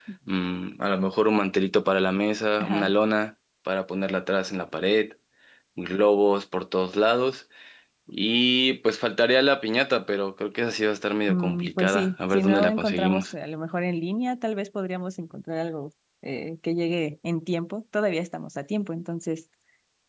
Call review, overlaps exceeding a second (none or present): present